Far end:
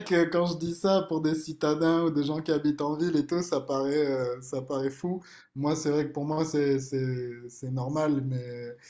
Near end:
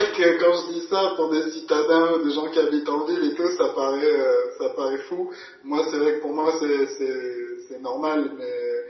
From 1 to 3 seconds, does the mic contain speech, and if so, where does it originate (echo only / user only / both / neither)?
echo only